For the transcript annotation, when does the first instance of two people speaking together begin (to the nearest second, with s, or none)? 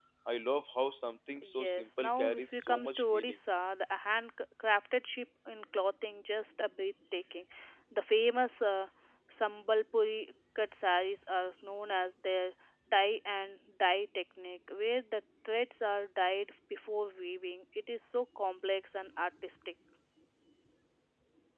1 s